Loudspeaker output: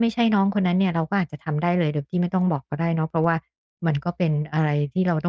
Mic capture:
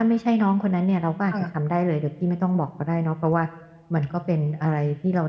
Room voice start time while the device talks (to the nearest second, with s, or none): 1 s